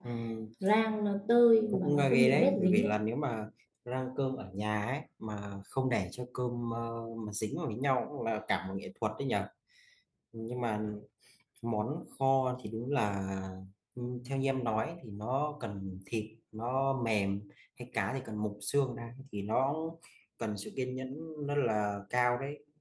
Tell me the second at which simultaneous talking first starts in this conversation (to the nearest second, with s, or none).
2 s